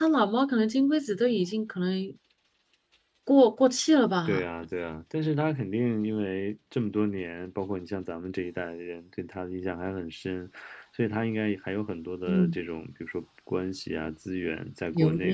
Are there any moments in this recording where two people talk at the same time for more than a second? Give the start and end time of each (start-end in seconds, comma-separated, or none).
none